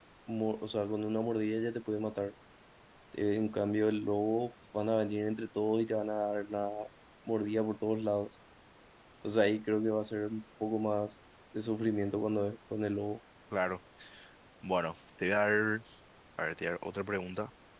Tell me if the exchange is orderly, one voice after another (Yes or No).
Yes